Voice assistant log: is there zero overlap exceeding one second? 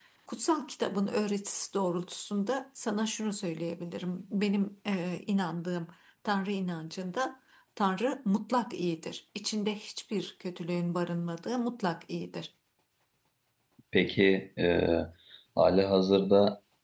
Yes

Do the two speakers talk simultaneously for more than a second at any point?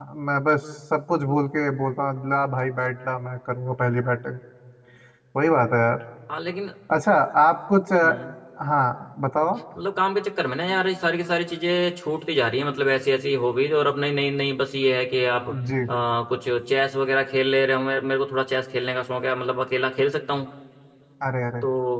No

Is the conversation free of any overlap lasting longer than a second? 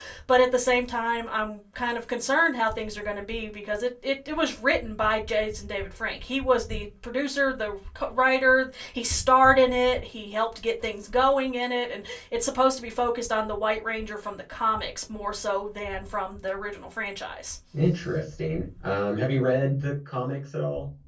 Yes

